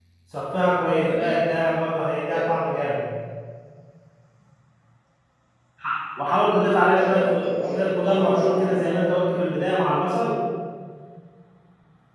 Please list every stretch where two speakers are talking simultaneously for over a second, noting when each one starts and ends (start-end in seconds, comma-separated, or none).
6.9-9.1